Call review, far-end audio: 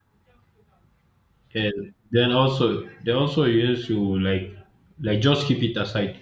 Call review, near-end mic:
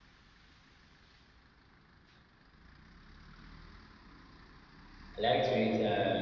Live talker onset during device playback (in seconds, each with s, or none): 5.2 s